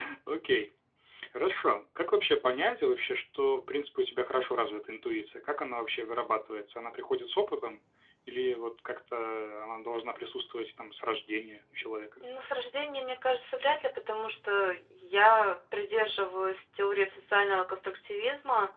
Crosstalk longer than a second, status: none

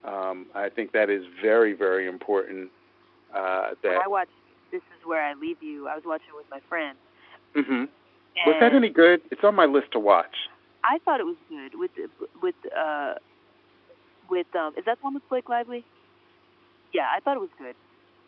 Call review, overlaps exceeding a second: none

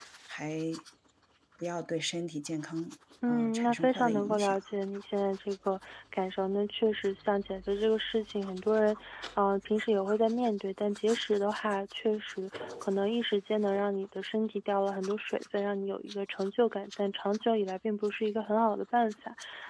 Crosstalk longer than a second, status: present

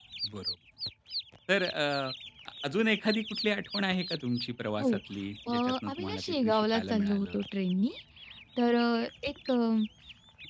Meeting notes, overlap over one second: present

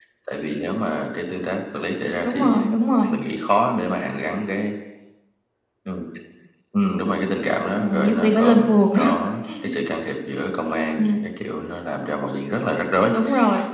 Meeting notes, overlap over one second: present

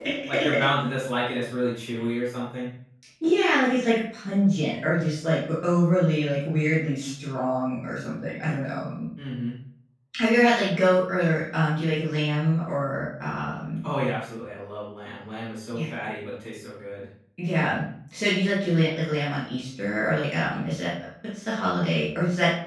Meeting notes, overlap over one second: none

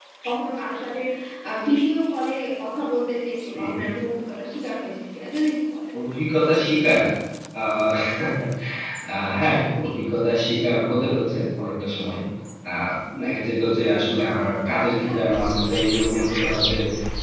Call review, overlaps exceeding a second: none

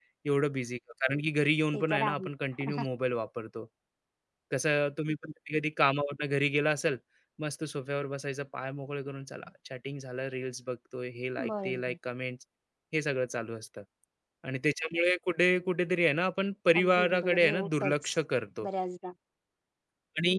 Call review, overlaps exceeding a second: present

